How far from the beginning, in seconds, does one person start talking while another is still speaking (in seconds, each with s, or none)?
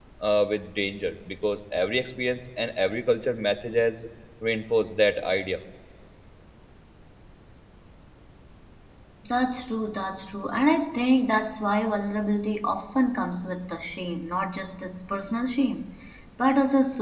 none